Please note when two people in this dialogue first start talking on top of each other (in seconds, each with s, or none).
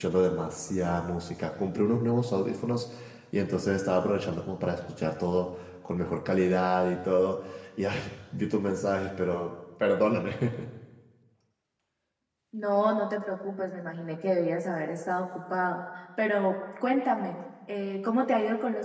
none